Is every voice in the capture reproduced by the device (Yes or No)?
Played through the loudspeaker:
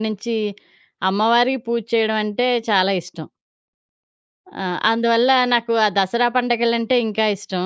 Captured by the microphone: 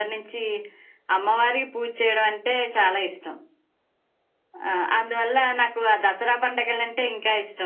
Yes